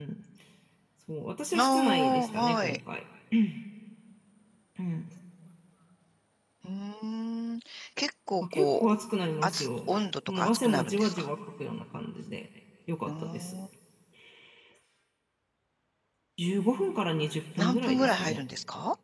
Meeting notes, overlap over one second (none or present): present